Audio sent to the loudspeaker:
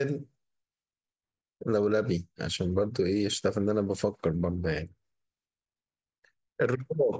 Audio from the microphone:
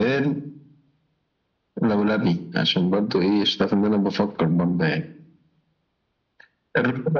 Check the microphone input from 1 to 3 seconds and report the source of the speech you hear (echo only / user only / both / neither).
echo only